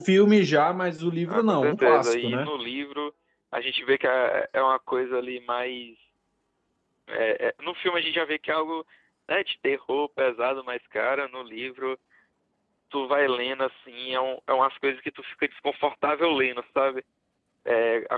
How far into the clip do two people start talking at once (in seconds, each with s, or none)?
1.3 s